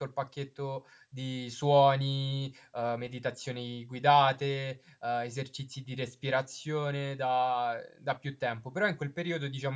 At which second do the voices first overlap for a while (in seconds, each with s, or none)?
none